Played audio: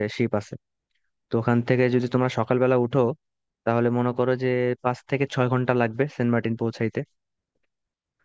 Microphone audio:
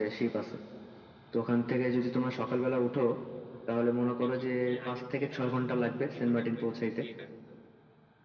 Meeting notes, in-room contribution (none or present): present